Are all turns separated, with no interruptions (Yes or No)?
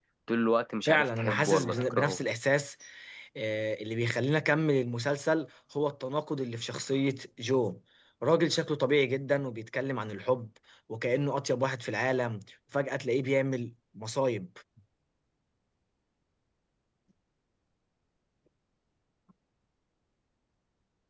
No